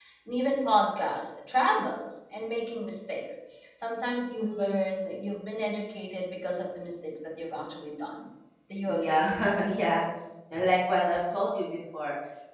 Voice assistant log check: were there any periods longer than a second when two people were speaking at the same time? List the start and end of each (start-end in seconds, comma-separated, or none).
none